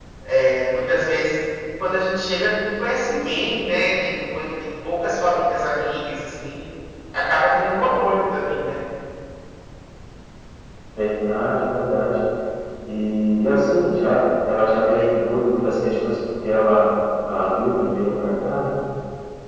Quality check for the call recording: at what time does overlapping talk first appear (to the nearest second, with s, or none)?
none